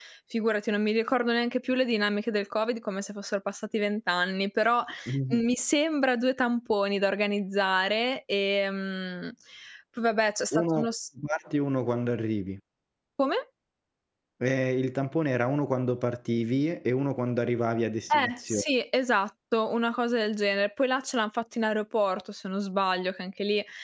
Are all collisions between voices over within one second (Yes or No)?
Yes